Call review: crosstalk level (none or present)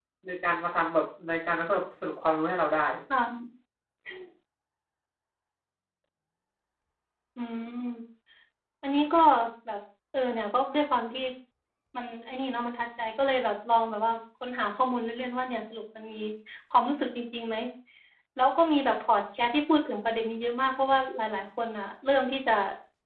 none